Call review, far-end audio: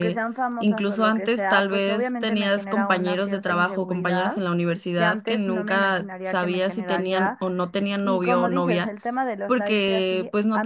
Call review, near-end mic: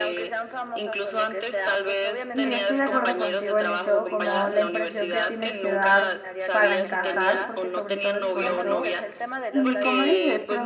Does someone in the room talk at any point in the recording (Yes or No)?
Yes